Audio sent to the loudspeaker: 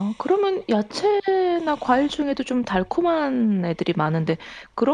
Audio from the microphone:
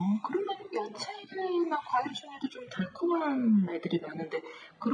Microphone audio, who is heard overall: echo only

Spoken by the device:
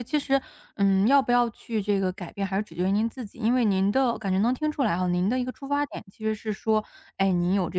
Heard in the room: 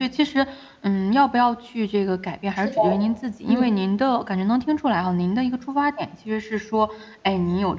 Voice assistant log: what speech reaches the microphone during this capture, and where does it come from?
both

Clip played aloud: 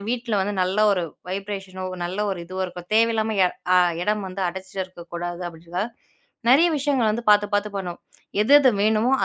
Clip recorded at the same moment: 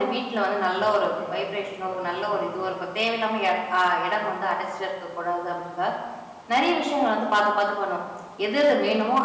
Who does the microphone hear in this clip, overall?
both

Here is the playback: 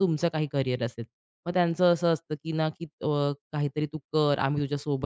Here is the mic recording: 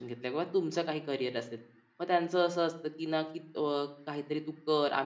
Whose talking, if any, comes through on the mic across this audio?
echo only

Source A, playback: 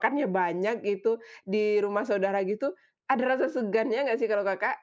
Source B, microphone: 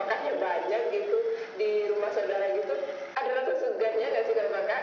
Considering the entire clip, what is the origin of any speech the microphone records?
echo only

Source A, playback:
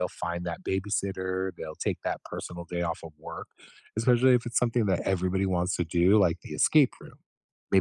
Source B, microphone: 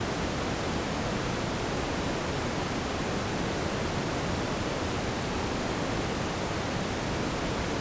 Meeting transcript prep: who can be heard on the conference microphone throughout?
neither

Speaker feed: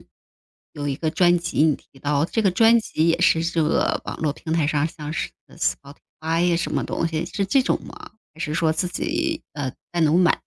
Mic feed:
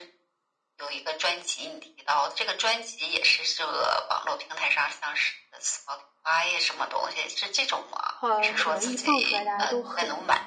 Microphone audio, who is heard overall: both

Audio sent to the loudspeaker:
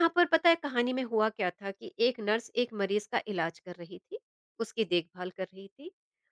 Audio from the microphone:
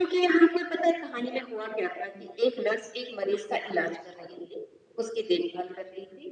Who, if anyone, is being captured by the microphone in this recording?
echo only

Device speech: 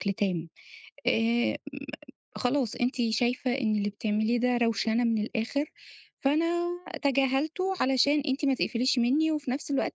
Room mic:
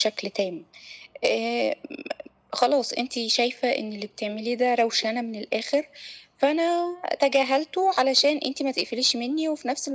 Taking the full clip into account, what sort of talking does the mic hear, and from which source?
echo only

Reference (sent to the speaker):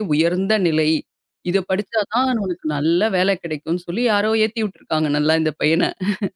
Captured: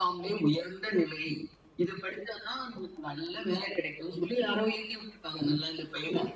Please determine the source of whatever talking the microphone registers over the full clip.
echo only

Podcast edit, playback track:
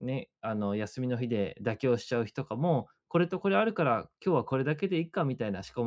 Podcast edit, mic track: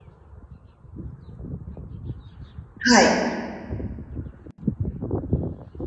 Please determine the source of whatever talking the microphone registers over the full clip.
user only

